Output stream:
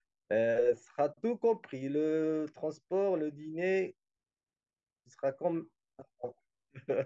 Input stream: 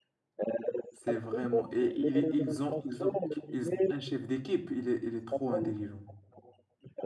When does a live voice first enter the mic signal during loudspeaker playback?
1 s

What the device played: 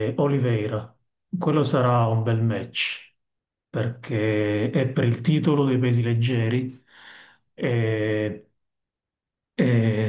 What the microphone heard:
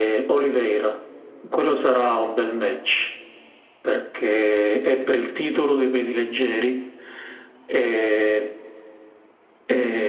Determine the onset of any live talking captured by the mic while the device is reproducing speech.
none

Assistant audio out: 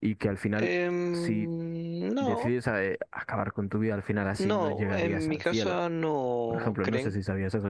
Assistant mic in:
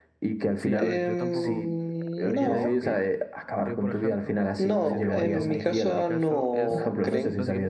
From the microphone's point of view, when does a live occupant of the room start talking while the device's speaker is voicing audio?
1 s

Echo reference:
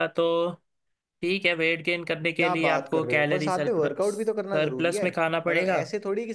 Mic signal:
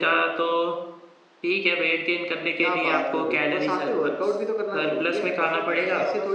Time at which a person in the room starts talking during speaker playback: 5 s

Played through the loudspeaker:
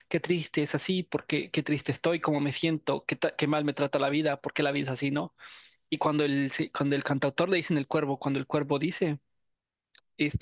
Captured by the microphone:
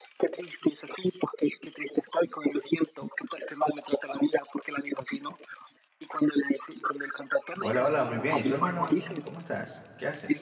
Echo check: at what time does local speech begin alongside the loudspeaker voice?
8 s

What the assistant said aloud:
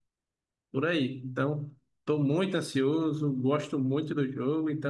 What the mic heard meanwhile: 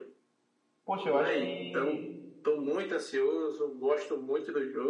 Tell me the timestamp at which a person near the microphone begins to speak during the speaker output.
1 s

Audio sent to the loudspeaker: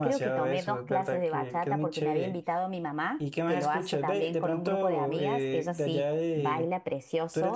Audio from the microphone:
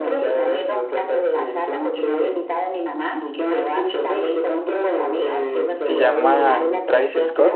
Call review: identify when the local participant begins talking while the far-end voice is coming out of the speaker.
6 s

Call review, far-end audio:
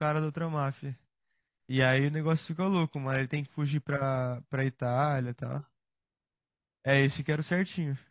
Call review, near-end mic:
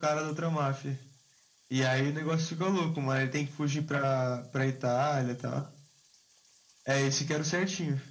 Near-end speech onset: none

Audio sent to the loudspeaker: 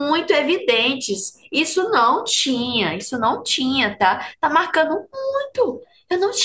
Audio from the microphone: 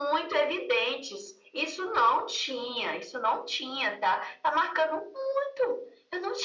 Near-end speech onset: none

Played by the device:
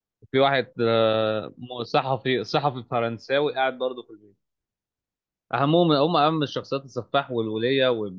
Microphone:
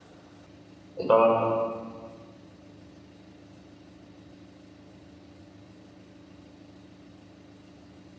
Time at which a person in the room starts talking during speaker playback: 1 s

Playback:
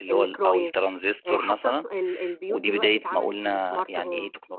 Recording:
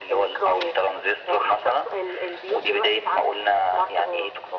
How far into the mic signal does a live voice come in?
none

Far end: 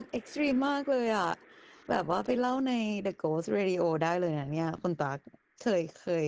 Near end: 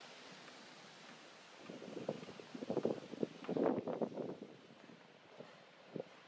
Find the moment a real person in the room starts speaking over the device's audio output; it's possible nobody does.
none

